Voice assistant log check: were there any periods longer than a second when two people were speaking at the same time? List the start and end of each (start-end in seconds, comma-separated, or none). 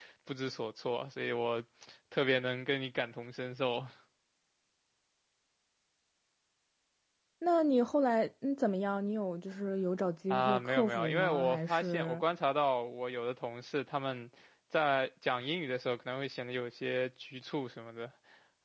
10.3-12.2